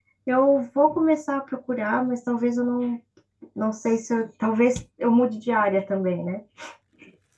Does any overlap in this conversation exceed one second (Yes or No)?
No